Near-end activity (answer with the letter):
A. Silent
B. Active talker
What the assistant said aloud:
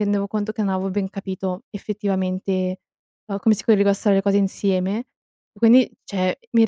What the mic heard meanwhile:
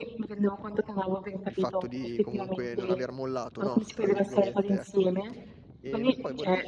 B